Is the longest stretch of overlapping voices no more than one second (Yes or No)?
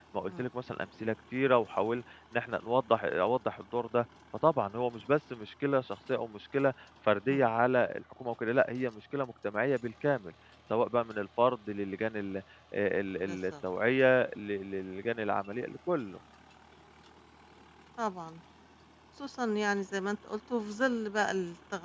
Yes